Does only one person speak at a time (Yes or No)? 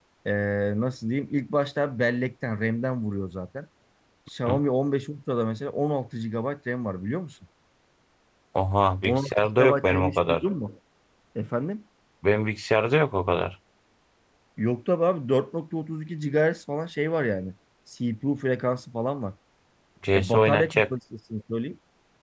No